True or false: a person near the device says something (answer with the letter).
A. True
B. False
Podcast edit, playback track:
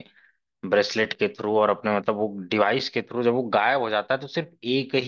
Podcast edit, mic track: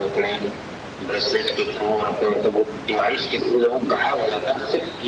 B